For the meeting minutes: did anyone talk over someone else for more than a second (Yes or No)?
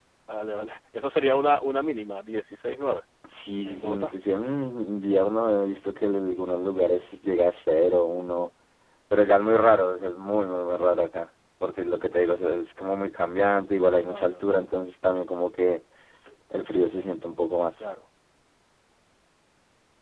No